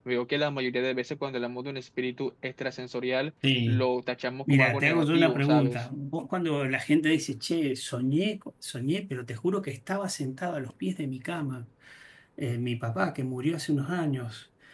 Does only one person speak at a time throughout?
No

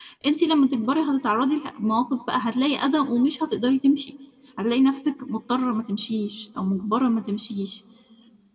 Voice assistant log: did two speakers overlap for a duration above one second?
No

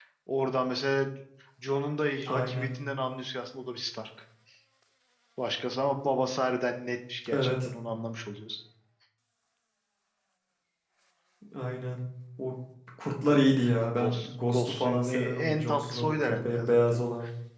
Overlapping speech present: Yes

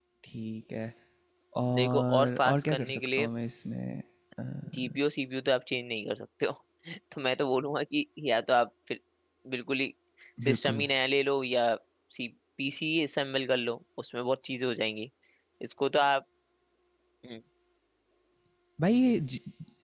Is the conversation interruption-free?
No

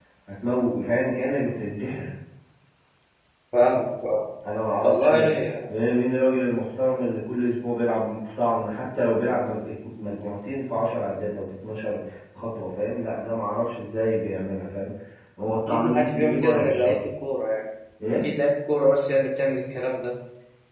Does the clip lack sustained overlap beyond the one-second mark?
No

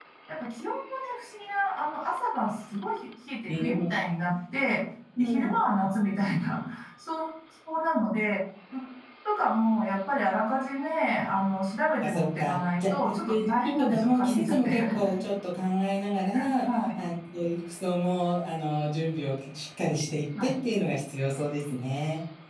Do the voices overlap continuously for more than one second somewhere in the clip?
Yes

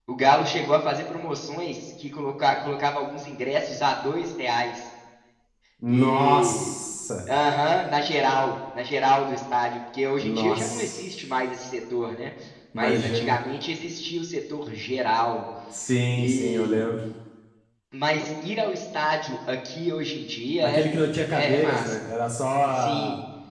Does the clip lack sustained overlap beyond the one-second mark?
No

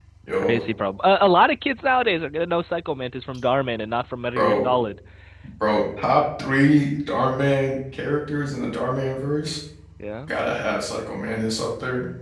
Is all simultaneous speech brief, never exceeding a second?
Yes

